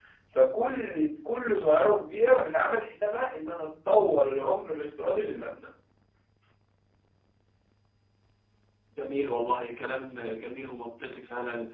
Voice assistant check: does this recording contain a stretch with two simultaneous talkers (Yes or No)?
No